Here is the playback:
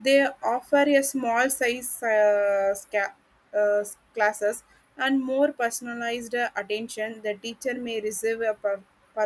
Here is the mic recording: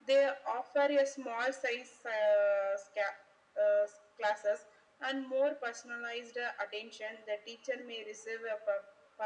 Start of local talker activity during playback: none

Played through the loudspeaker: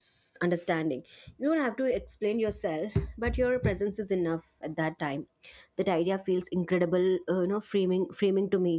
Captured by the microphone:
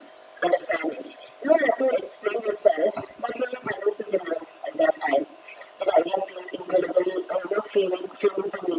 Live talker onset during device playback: none

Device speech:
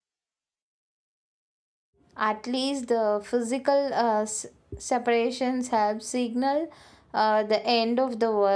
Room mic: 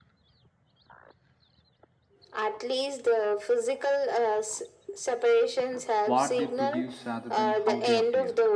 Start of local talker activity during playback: 6.0 s

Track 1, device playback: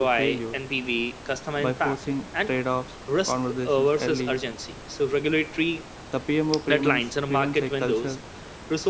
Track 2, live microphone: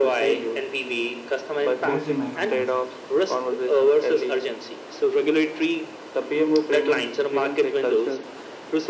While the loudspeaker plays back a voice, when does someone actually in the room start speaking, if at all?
1.8 s

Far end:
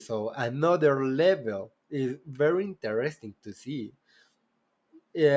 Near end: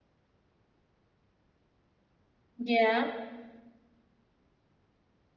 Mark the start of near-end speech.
2.6 s

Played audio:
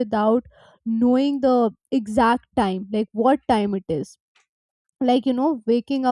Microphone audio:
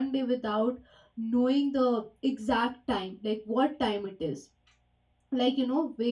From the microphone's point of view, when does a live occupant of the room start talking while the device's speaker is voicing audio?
none

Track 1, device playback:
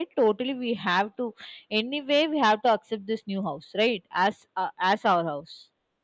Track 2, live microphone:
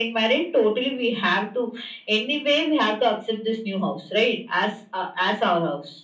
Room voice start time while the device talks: none

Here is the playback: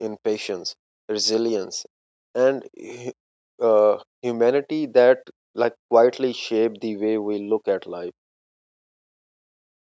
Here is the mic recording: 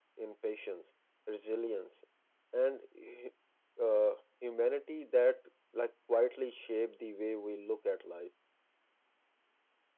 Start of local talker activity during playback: none

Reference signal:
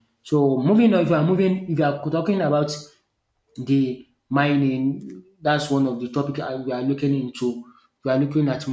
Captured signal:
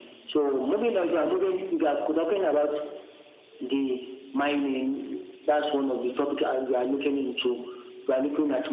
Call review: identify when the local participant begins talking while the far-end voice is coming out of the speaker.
none

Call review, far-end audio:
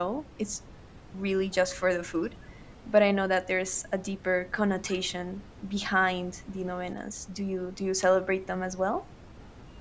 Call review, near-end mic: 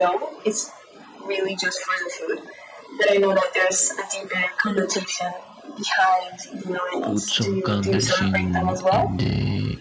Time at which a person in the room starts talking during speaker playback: 7.0 s

